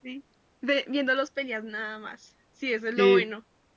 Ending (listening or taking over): taking over